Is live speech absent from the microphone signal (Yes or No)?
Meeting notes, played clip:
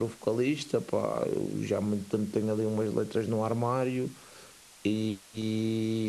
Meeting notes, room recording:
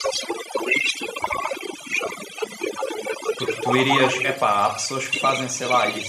No